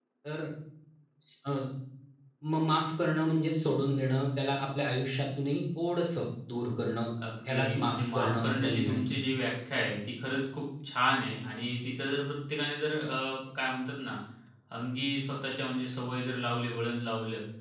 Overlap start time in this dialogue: 7.4 s

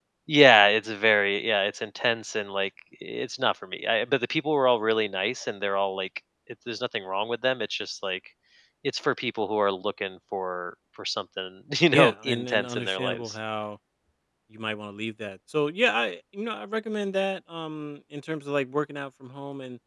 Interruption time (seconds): 11.9 s

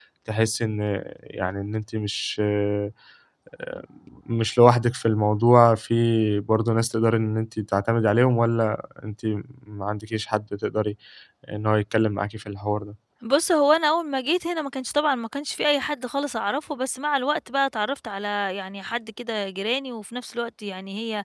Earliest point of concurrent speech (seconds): none

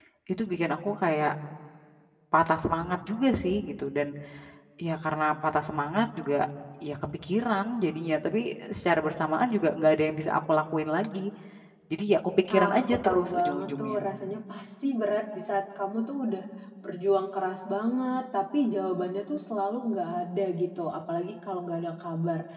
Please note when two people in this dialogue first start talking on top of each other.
12.5 s

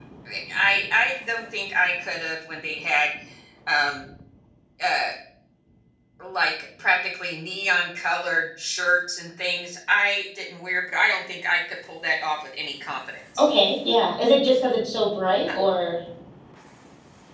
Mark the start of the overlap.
none

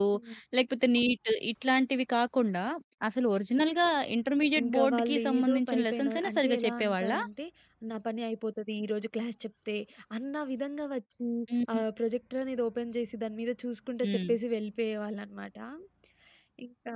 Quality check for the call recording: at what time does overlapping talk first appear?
4.6 s

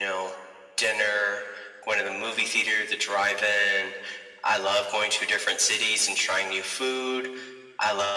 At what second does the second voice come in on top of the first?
none

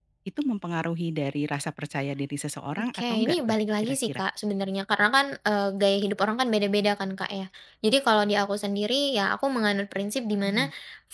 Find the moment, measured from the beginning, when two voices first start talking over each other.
2.9 s

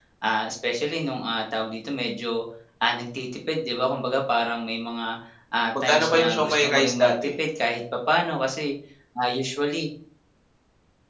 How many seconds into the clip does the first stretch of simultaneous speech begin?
5.7 s

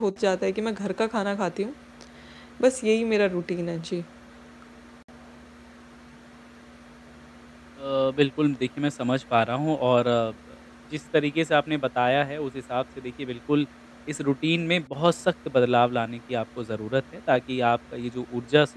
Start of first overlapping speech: none

